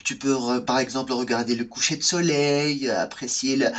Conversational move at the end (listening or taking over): listening